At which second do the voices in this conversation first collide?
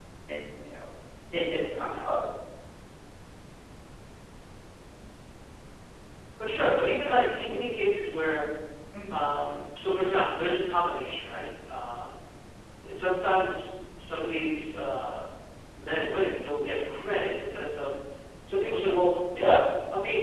none

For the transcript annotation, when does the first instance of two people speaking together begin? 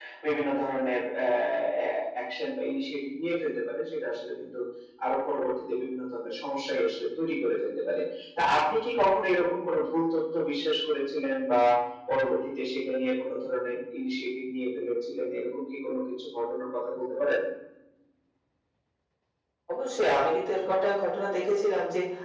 none

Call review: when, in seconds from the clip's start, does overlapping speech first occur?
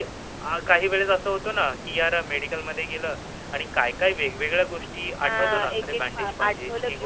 5.2 s

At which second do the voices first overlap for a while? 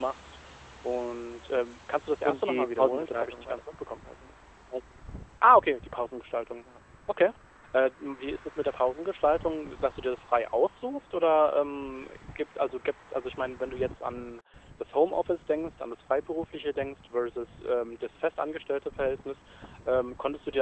2.2 s

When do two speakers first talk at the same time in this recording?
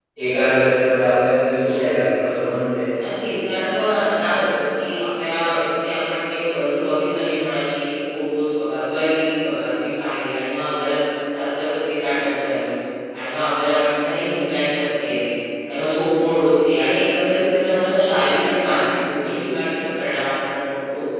none

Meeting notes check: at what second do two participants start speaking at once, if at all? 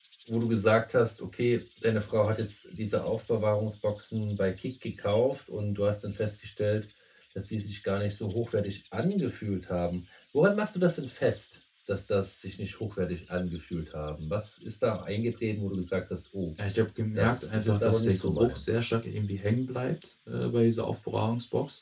17.2 s

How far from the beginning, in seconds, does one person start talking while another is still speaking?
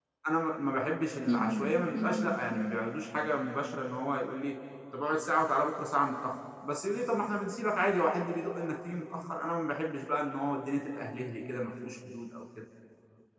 1.3 s

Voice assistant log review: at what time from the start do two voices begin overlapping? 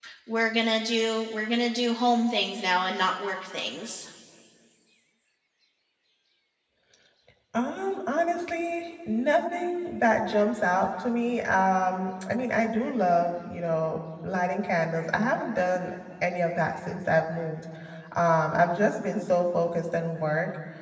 none

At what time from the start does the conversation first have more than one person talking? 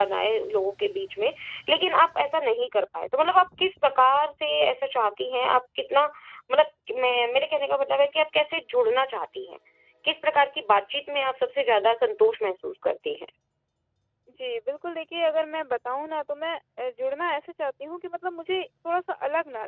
none

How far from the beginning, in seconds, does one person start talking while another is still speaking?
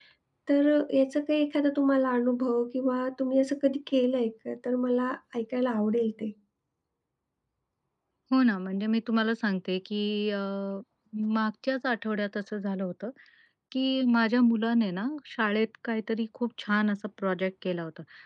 none

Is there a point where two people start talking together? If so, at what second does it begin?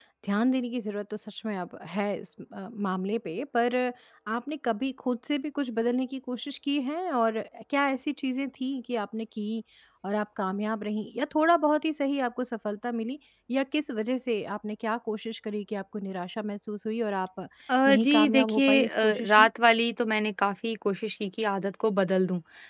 17.9 s

